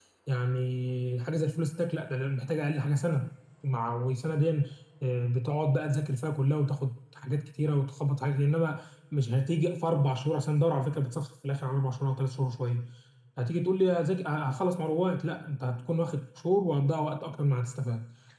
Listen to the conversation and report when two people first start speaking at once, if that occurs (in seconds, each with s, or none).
none